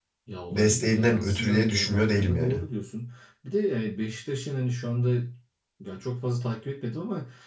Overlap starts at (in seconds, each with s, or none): 0.5 s